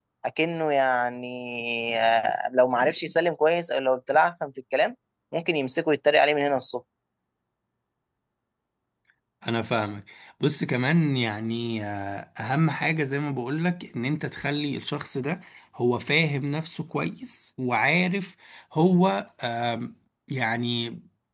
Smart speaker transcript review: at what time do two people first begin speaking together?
none

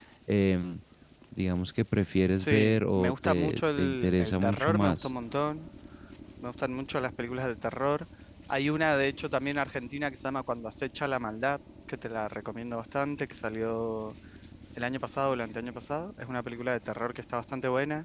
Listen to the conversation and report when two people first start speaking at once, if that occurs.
2.4 s

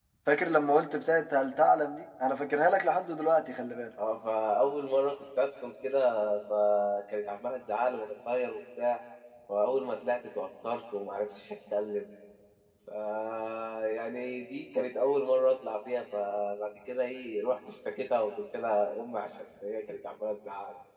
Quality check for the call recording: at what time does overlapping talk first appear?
none

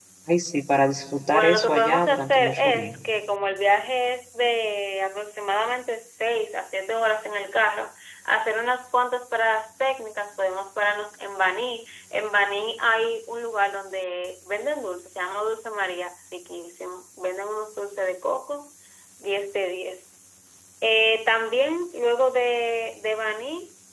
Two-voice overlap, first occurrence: 1.3 s

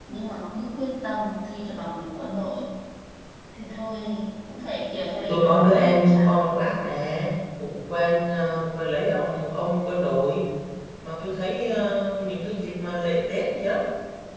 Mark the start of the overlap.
5.2 s

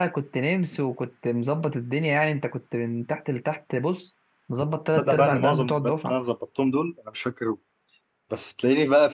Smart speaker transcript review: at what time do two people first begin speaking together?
4.9 s

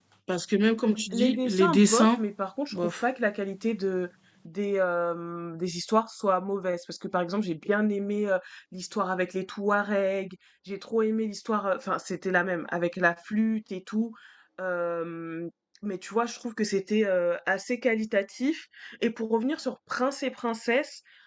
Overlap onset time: 0.9 s

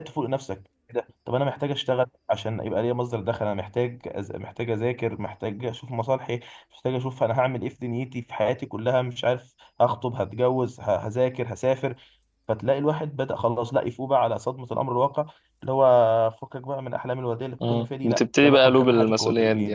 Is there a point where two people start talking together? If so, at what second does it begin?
17.6 s

